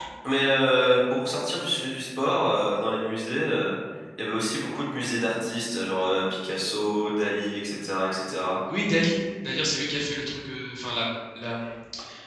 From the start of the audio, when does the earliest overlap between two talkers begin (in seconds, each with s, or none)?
none